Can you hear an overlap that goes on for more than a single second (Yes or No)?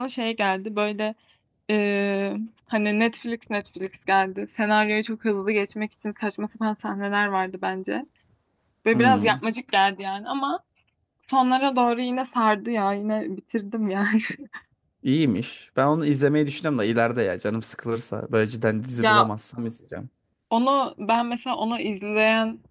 No